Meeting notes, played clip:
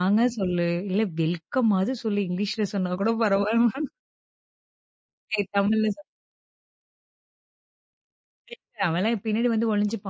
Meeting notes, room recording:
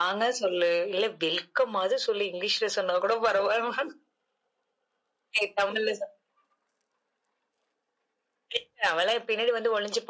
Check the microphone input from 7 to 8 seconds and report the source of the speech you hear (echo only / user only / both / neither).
neither